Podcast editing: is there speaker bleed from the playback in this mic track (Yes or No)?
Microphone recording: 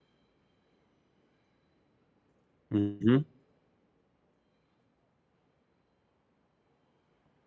No